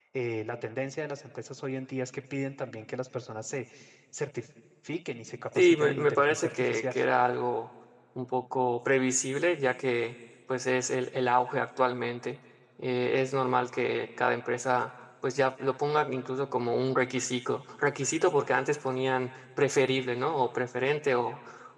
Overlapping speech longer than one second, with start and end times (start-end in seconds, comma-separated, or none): 5.5-6.9